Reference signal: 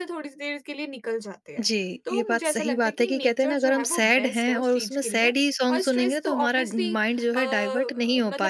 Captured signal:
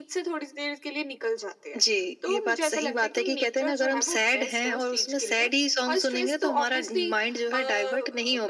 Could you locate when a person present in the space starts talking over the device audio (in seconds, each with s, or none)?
none